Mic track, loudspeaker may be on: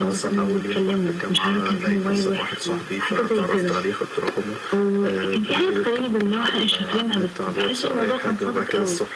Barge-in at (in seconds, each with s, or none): none